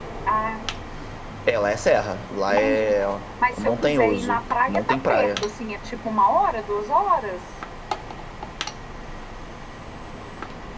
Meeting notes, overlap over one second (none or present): present